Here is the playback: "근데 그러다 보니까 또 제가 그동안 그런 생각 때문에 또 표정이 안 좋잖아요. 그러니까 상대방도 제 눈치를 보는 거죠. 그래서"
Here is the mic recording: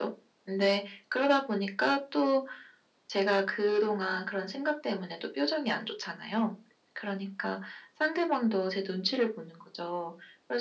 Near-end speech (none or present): none